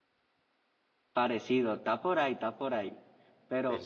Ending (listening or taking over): listening